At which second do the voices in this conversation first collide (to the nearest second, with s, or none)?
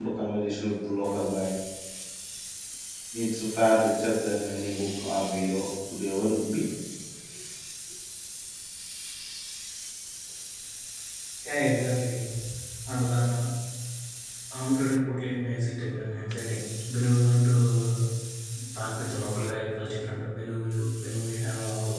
none